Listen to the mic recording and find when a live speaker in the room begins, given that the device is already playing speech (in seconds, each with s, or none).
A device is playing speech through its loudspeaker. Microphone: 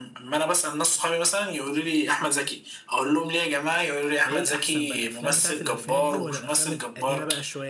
4.2 s